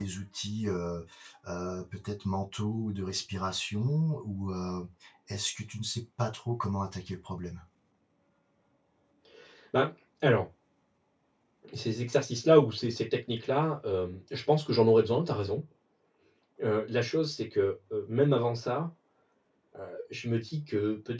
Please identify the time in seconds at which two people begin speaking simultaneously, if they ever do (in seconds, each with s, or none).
none